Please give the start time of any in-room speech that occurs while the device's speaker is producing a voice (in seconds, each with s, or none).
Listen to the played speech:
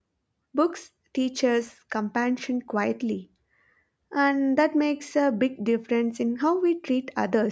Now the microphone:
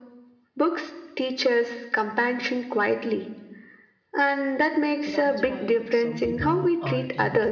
5.0 s